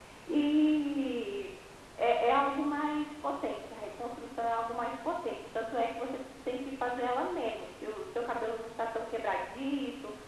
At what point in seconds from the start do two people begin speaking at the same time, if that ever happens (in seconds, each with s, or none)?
none